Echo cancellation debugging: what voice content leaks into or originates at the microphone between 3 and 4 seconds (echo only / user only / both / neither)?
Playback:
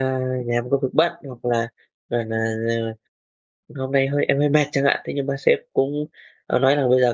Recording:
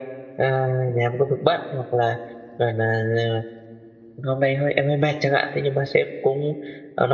echo only